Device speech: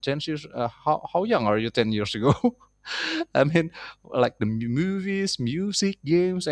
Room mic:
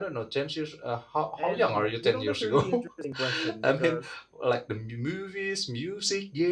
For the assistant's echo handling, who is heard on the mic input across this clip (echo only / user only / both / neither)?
both